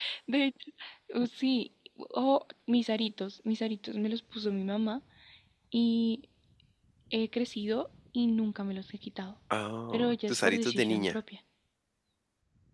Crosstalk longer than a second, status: present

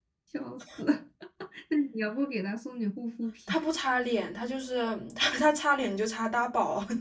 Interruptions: none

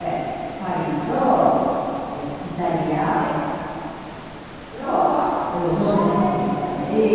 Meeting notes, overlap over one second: present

